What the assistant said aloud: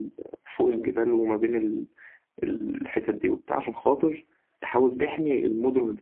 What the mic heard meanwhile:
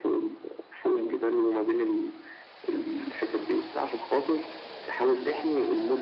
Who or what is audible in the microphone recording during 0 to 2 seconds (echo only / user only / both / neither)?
echo only